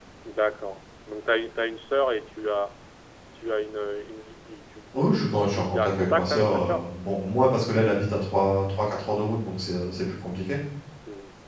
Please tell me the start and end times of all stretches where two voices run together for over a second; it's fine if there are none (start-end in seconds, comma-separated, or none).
5.0-6.8